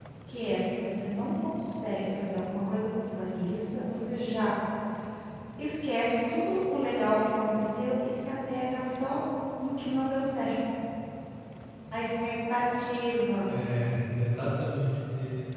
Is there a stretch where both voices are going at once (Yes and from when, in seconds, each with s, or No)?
No